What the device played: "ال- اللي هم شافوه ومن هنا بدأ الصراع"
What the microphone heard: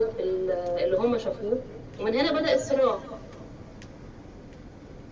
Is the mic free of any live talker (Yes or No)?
Yes